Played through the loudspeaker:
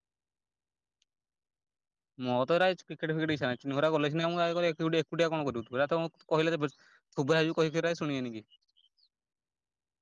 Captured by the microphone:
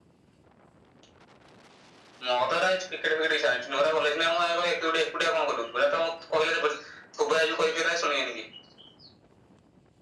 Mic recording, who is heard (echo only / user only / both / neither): echo only